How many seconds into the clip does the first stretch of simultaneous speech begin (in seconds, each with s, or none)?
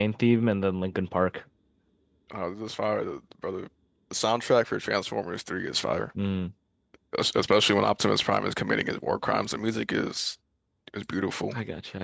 none